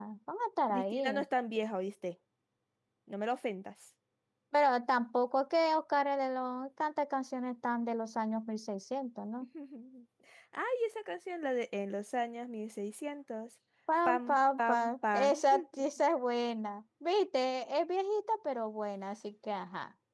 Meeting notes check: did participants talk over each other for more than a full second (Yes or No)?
Yes